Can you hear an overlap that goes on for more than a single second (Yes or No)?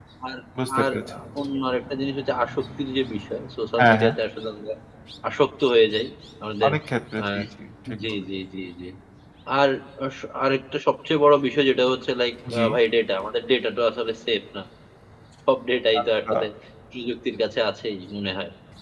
No